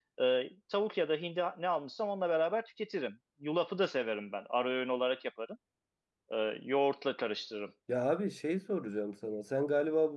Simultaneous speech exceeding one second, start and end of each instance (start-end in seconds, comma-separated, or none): none